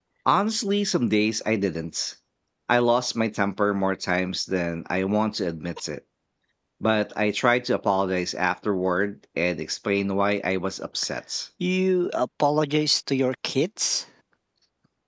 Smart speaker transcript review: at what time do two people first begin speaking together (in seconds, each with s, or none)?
none